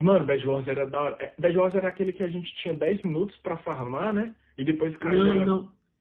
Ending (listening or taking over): taking over